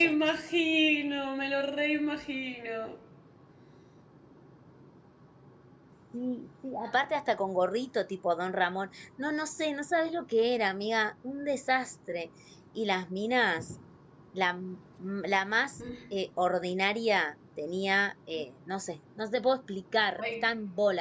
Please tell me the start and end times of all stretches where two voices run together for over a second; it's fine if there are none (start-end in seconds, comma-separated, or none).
none